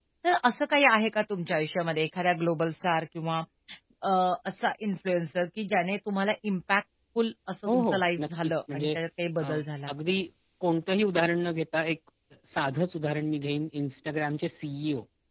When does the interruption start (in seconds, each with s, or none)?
7.7 s